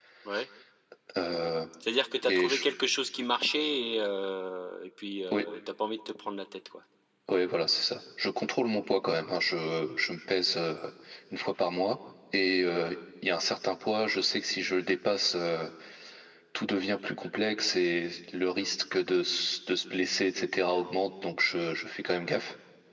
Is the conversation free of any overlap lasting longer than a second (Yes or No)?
Yes